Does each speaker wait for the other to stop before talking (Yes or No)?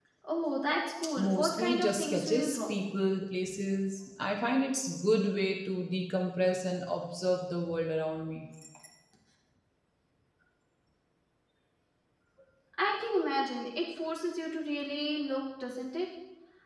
No